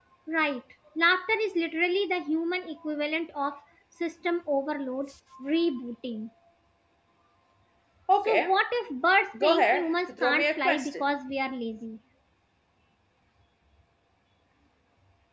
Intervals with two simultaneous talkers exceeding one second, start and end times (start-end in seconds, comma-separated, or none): 9.4-11.0